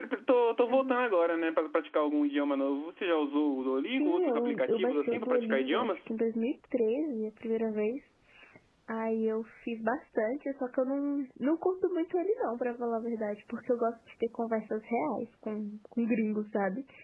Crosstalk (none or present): present